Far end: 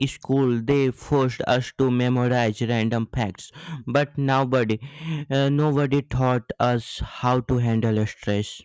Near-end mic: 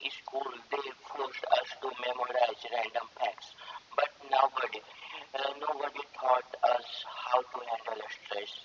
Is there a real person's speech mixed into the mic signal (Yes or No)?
No